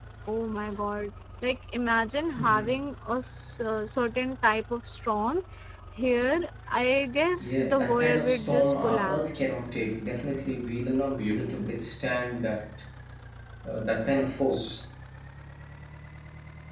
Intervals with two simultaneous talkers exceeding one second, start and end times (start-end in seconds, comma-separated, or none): 7.4-9.5